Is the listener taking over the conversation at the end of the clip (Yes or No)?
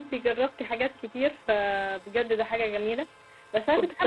No